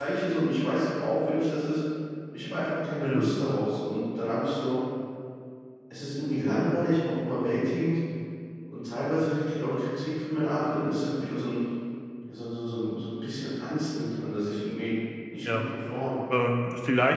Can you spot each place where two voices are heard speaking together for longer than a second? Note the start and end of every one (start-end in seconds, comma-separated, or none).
none